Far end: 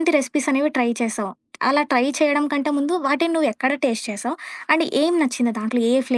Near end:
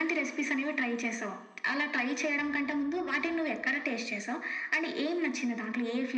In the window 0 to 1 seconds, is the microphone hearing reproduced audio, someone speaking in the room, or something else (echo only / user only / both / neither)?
echo only